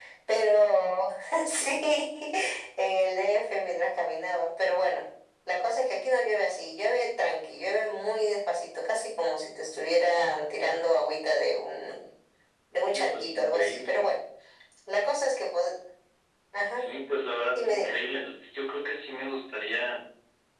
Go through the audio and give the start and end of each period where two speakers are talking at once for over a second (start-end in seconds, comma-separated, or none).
12.8-14.0